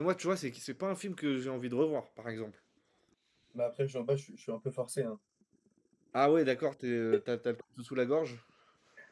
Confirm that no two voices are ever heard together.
Yes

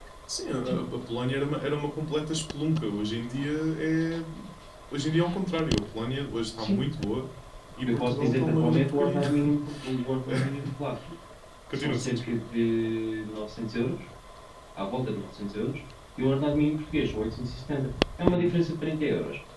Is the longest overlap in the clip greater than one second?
Yes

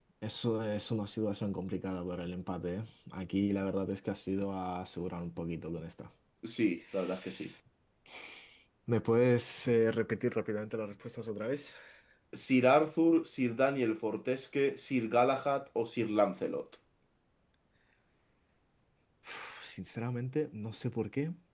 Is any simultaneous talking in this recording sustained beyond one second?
No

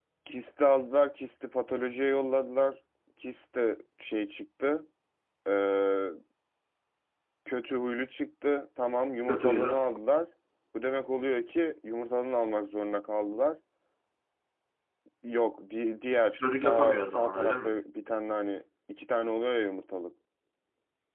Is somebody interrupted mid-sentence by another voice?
Yes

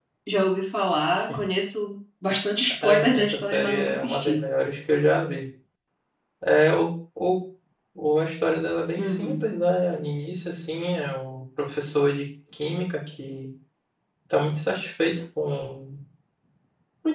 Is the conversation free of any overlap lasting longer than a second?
No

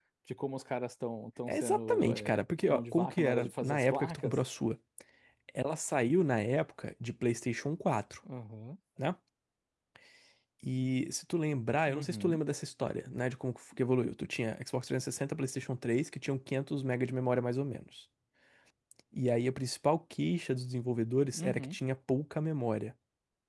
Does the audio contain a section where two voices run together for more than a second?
Yes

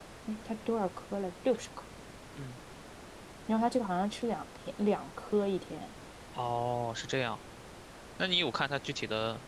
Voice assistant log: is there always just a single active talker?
Yes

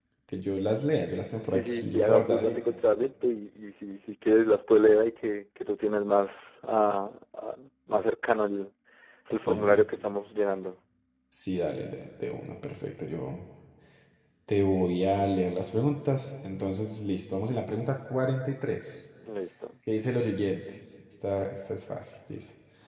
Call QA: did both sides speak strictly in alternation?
No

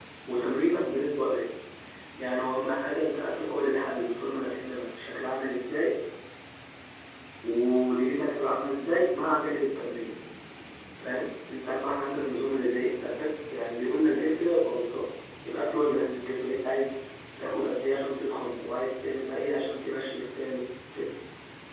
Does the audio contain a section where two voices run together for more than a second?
No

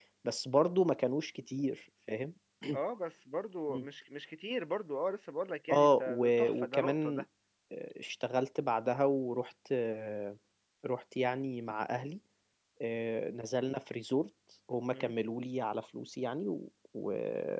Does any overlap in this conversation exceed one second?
Yes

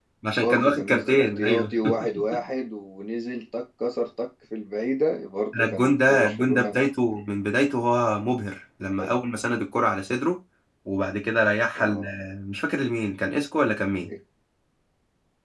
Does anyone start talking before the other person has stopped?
Yes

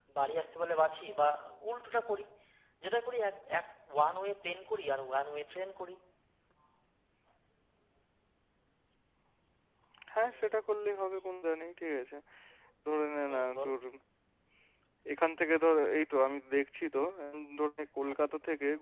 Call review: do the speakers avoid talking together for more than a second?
Yes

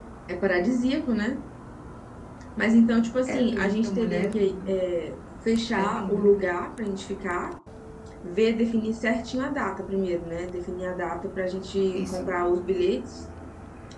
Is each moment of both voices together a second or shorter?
No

